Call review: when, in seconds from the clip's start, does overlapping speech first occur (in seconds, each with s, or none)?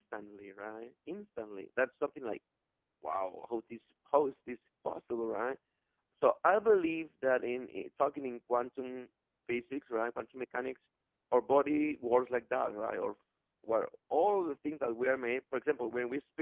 none